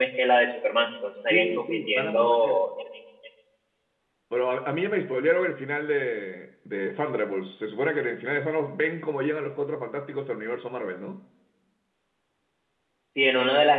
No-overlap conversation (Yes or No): No